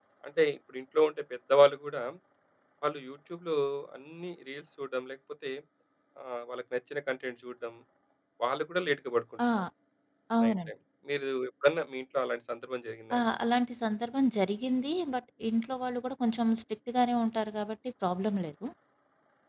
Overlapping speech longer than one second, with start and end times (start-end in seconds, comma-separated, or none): none